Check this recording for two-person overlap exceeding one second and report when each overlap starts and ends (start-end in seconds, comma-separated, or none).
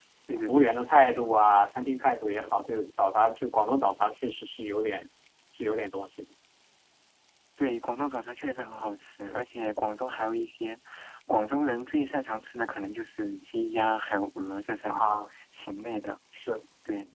none